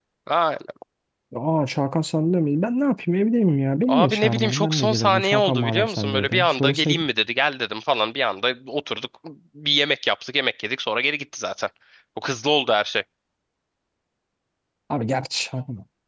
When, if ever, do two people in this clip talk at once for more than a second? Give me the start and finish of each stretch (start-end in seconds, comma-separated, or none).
3.9-7.0